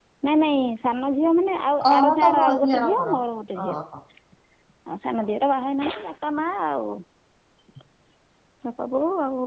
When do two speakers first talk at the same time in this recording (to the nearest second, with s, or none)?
2 s